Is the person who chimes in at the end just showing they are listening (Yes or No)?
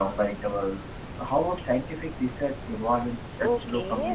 No